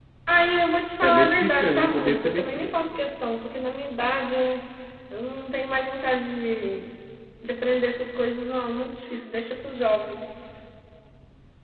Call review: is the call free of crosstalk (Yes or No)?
No